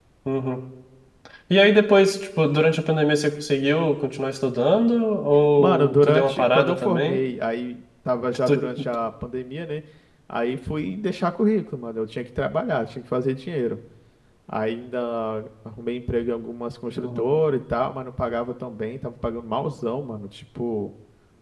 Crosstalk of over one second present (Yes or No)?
Yes